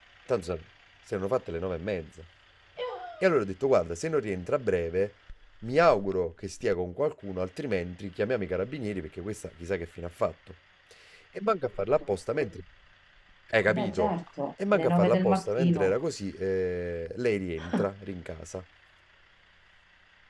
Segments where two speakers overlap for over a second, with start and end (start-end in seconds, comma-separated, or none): 14.7-15.9